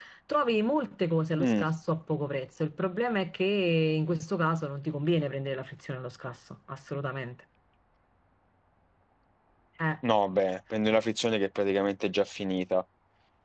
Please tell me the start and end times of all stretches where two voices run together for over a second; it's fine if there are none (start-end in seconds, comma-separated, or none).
none